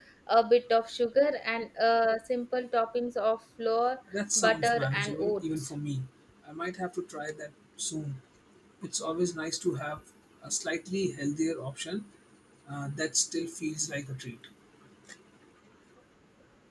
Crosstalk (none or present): present